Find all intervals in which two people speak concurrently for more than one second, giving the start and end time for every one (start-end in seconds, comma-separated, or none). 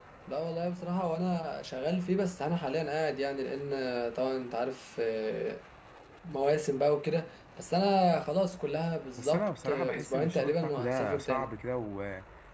9.2-11.5